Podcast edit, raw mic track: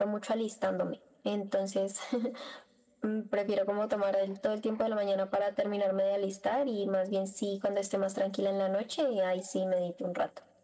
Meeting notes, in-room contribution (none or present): none